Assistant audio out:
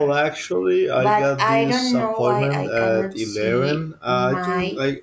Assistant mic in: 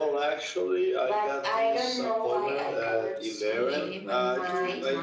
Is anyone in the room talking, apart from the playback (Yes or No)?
Yes